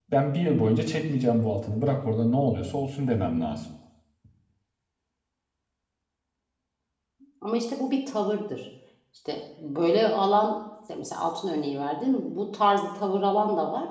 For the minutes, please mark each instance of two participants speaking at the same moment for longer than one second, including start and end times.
none

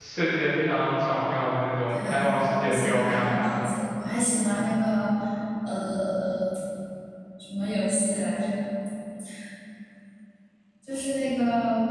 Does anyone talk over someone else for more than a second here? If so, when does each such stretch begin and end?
1.9-3.5

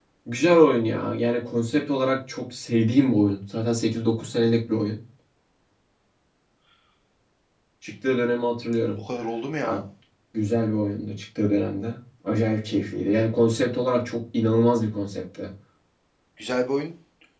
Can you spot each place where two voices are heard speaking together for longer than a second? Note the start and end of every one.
none

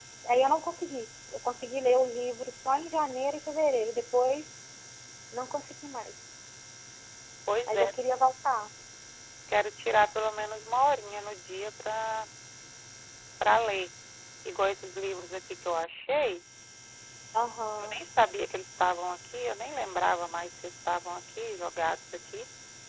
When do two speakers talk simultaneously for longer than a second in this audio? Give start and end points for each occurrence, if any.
none

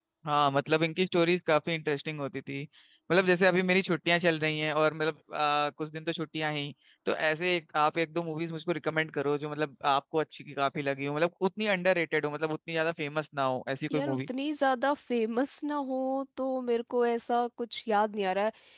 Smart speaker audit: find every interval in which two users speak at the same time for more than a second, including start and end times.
none

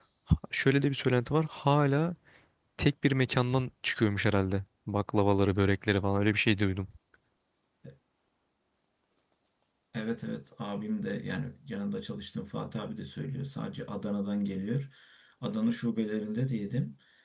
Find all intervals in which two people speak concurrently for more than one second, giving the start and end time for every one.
none

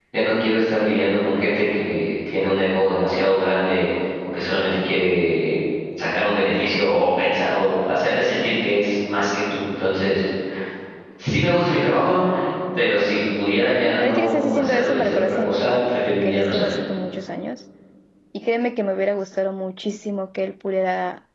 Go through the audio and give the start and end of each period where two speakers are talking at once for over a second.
14.0-16.7

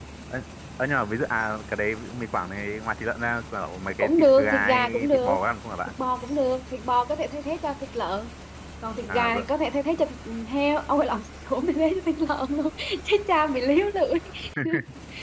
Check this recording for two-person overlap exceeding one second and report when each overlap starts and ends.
4.0-5.4

